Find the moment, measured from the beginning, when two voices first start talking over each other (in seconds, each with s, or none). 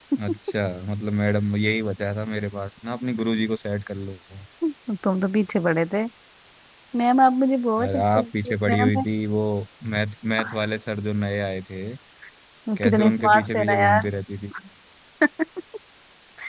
7.8 s